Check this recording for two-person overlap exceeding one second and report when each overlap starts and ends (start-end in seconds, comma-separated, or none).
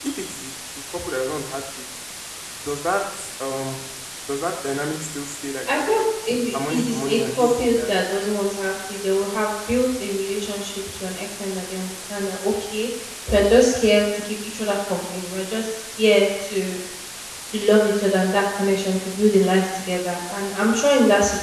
6.7-7.9